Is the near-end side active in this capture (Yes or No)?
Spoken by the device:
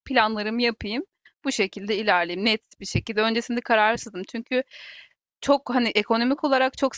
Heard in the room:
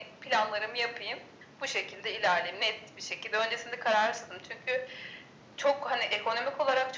No